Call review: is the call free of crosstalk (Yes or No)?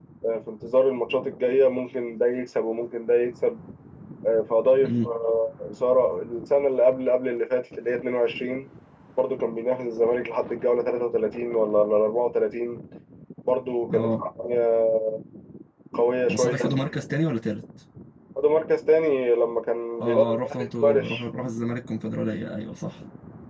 No